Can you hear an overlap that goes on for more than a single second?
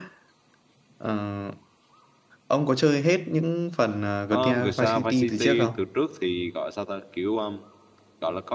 Yes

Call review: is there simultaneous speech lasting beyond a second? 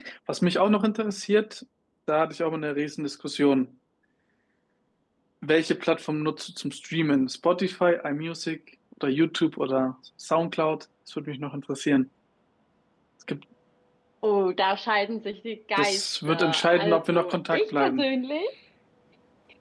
Yes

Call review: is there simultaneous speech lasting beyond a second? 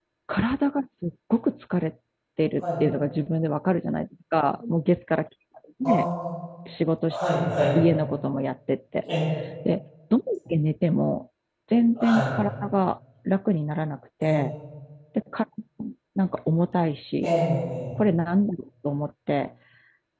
No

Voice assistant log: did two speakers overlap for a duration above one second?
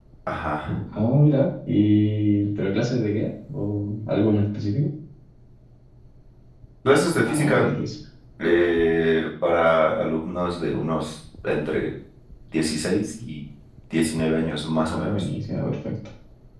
No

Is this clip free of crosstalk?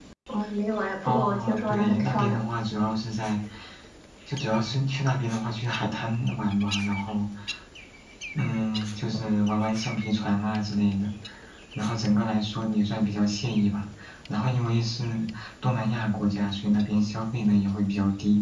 No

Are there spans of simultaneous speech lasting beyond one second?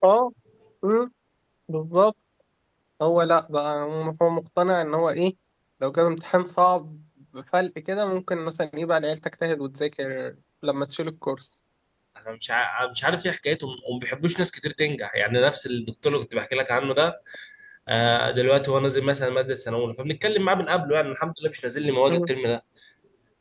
No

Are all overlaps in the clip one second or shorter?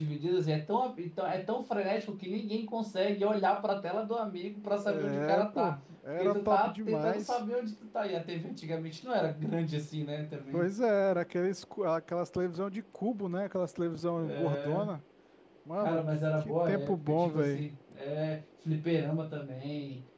No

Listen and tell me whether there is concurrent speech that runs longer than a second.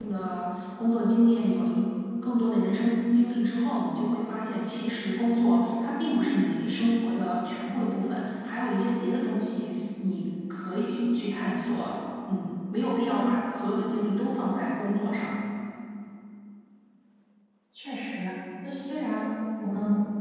No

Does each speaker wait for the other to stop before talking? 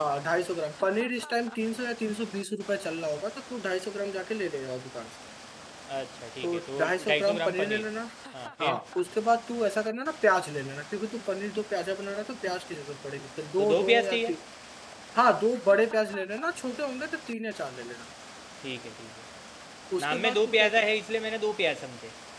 No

